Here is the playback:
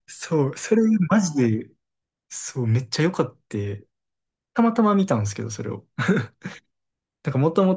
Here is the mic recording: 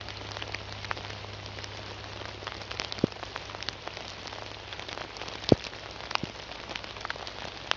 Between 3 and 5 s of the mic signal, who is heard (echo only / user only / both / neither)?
neither